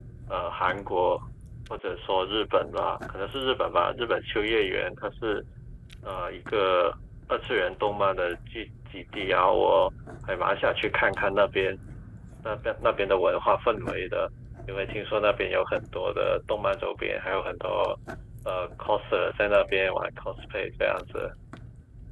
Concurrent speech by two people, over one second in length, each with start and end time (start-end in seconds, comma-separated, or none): none